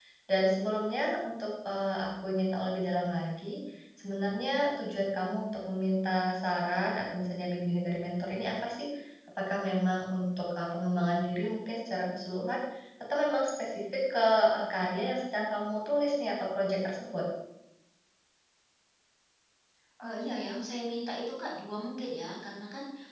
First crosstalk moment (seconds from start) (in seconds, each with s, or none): none